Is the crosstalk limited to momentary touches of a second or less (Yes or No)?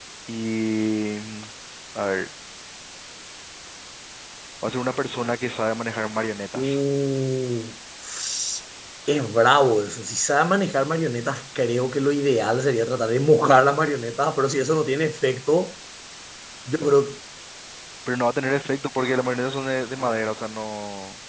Yes